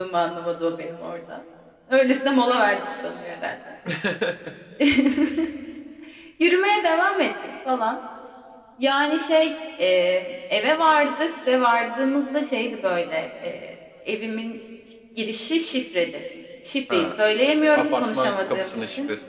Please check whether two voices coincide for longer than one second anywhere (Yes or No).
Yes